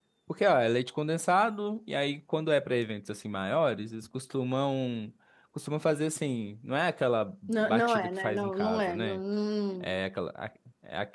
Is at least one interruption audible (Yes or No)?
Yes